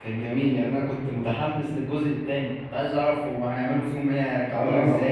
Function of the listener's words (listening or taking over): taking over